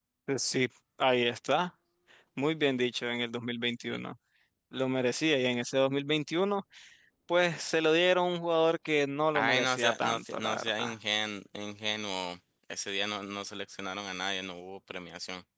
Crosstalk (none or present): present